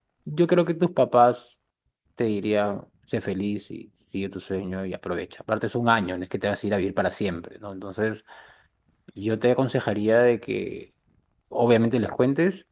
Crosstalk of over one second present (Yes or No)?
No